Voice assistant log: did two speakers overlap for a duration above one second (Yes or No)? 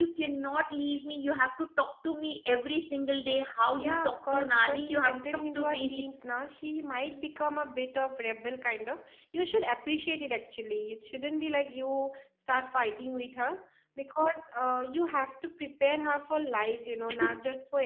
Yes